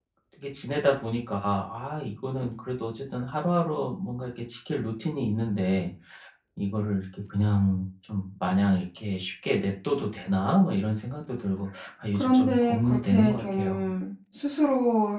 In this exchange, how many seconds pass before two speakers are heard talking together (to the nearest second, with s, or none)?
12 s